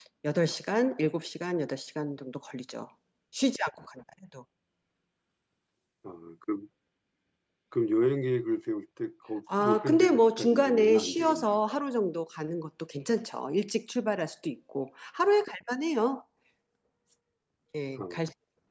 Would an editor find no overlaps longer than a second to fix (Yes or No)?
No